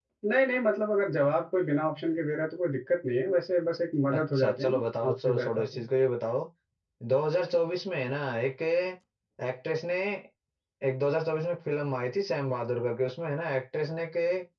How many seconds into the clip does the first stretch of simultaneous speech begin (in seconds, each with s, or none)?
4.1 s